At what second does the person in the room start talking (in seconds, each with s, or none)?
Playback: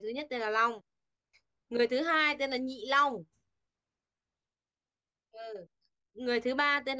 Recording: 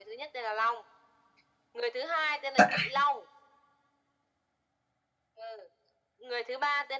2.6 s